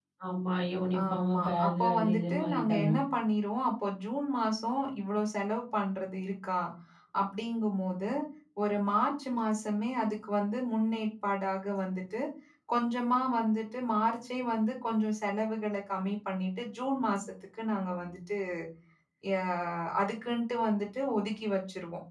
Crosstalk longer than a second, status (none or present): present